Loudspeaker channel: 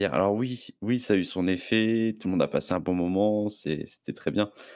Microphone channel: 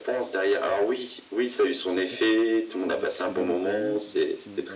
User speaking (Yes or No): Yes